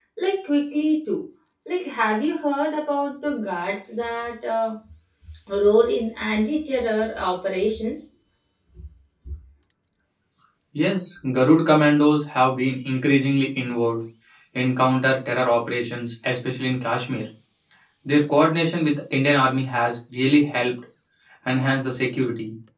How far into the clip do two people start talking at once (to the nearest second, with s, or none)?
none